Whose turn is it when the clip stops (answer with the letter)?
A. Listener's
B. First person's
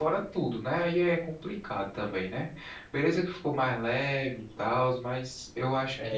A